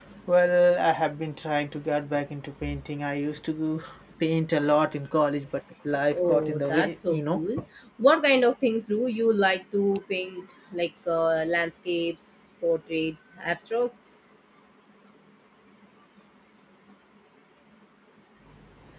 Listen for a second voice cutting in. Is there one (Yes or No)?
Yes